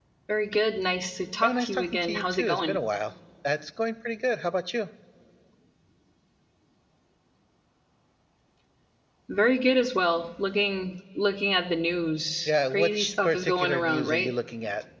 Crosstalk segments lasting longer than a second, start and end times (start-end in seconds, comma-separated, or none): 1.4-2.8, 12.5-14.3